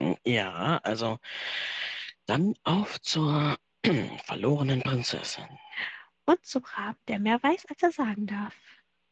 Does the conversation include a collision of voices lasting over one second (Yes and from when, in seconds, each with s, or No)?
No